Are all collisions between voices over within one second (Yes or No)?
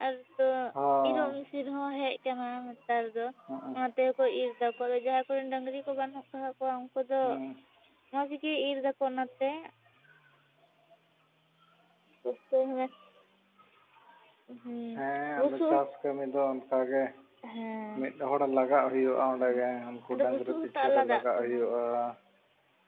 No